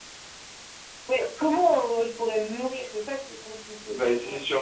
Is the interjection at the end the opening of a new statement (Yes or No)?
Yes